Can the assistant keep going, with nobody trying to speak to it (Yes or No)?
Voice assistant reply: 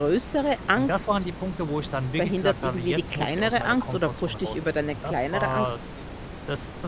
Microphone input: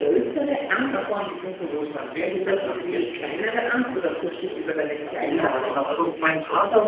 No